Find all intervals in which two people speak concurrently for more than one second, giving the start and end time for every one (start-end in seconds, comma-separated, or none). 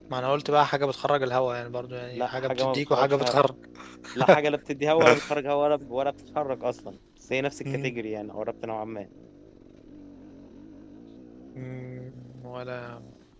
2.1-3.4